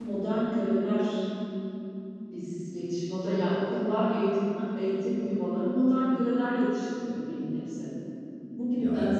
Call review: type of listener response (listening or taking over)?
listening